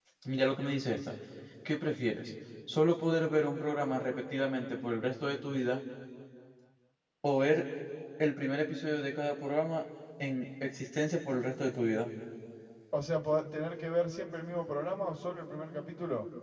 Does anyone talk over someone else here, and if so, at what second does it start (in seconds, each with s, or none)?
none